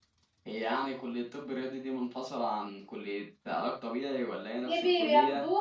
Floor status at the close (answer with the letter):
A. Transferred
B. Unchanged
A